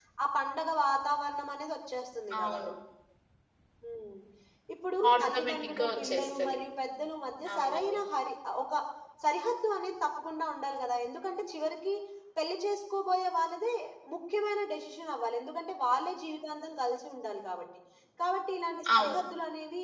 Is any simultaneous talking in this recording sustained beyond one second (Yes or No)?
Yes